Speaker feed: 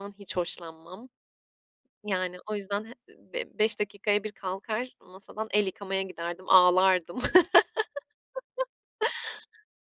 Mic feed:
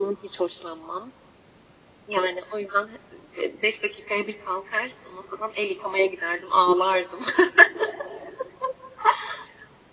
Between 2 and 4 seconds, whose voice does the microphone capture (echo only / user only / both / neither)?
echo only